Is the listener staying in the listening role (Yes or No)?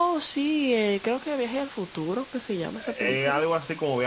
No